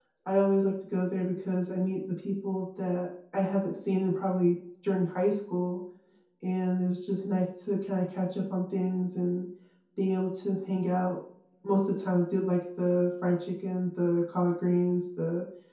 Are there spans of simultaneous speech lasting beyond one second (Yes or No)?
No